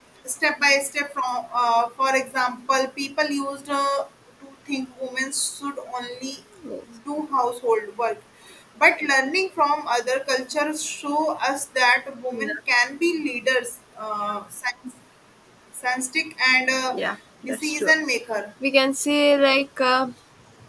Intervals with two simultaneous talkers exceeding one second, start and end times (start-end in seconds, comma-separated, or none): none